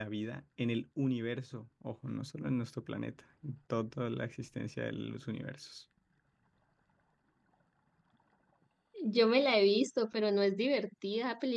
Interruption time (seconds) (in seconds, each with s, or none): none